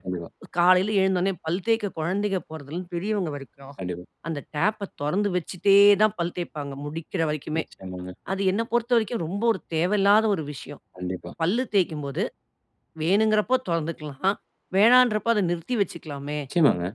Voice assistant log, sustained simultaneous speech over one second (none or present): none